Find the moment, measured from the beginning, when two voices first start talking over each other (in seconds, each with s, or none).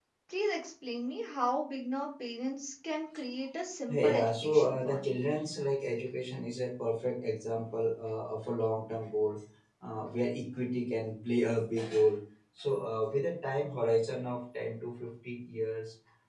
3.9 s